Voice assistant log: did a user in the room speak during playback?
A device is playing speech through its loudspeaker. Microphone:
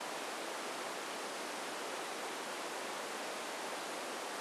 No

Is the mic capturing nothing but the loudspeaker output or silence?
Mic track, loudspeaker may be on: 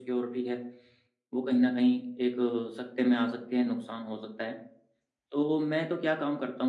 Yes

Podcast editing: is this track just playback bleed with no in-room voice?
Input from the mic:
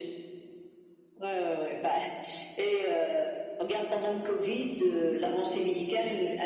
Yes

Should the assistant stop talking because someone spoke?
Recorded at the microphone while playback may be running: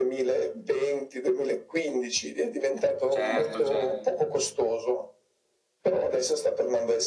Yes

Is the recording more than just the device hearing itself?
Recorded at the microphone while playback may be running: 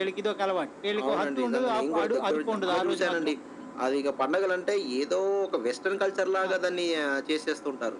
No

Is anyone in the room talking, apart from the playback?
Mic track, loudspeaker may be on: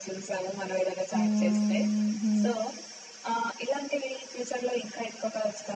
Yes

